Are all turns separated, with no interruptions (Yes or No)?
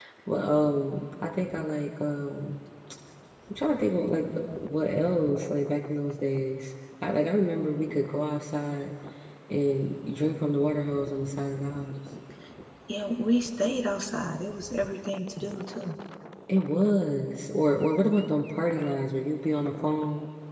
Yes